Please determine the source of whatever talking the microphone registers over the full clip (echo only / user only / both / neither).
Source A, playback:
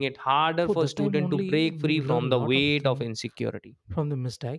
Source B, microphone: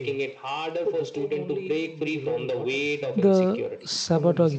both